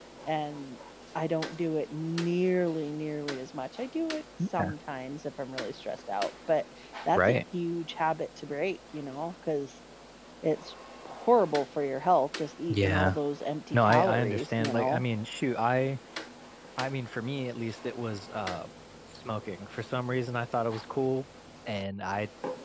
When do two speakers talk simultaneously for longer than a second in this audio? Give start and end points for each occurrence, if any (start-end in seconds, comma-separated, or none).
13.7-15.0